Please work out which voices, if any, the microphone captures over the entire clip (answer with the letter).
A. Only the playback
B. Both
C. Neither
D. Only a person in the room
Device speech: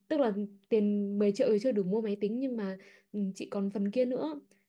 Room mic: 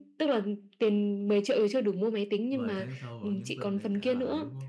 B